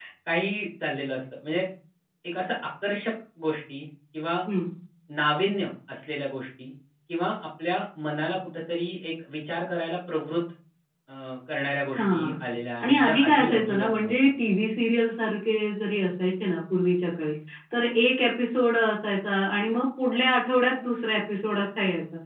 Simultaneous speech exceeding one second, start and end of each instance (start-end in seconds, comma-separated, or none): 12.8-14.1